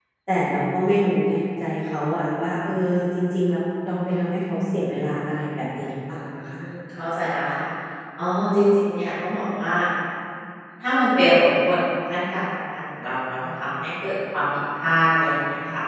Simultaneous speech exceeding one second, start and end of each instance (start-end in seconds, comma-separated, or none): none